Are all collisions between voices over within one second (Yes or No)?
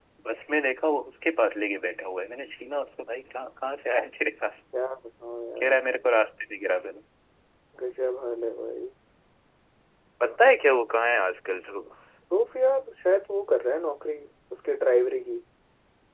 Yes